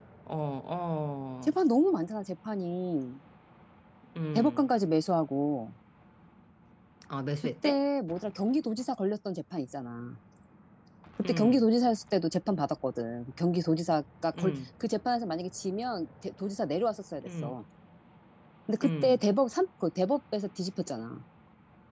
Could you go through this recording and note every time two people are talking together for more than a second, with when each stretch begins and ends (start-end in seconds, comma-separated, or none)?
none